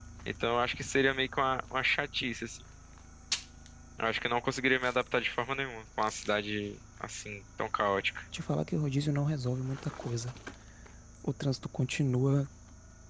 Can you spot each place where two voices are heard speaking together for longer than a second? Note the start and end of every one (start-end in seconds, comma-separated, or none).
none